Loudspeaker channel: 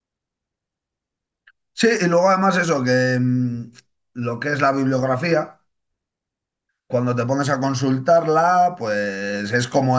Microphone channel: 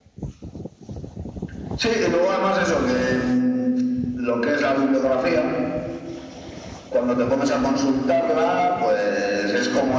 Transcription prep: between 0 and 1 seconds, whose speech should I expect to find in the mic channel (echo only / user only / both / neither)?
neither